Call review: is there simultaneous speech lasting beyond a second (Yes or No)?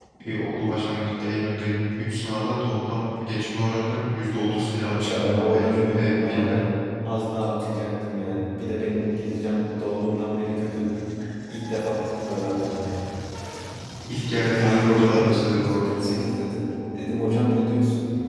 Yes